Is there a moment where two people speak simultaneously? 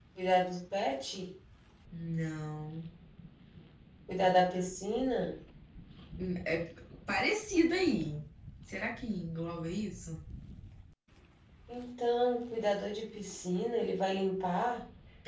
No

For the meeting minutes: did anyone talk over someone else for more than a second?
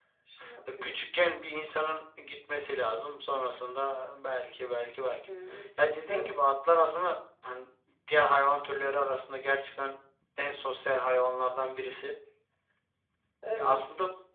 No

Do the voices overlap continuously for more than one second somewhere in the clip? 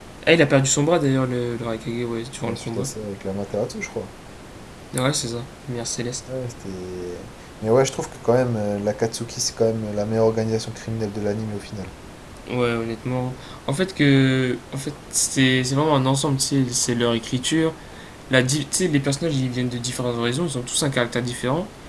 No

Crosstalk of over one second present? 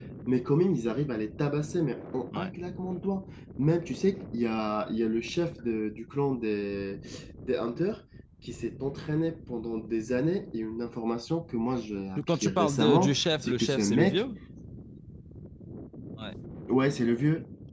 Yes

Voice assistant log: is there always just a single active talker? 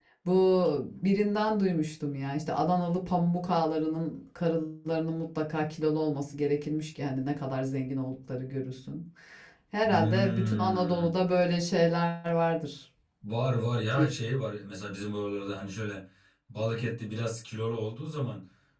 No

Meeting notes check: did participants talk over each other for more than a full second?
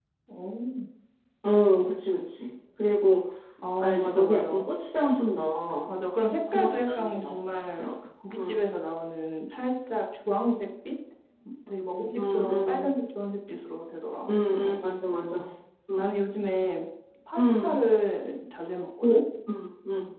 Yes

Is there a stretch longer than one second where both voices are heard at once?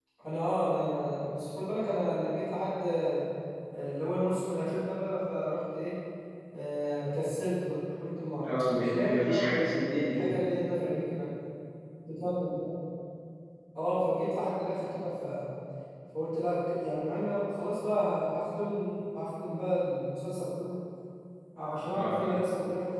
Yes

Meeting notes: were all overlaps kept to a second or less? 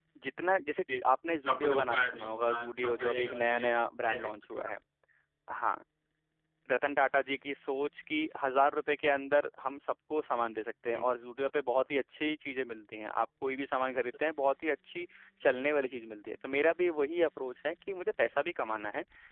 No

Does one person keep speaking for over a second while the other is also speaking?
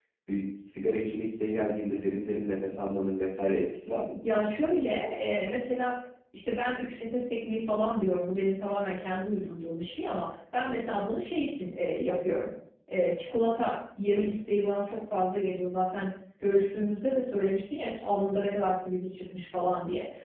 No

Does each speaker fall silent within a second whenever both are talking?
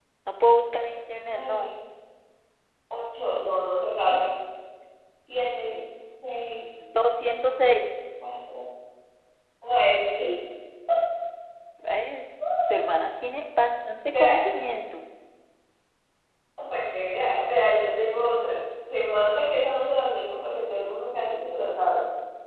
Yes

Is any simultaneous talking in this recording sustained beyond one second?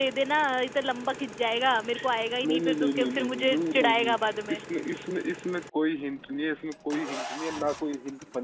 Yes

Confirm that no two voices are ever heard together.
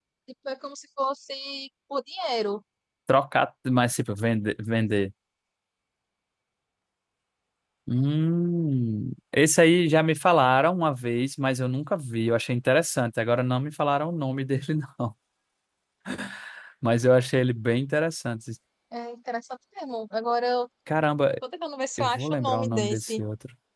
No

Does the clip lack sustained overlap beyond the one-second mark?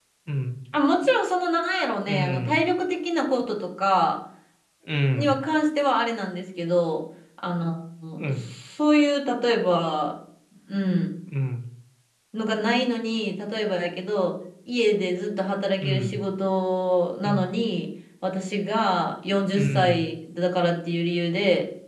Yes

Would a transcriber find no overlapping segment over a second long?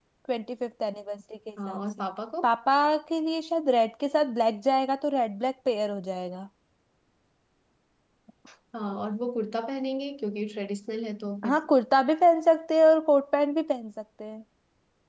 Yes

